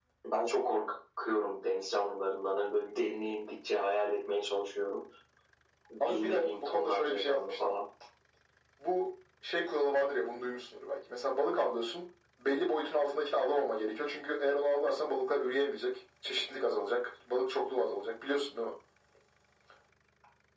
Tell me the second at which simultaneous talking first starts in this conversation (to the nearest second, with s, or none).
6 s